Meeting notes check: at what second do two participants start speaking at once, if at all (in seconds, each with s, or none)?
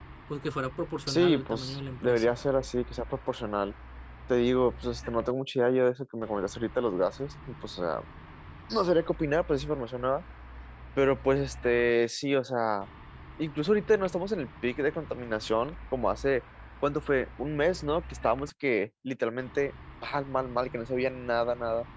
1.1 s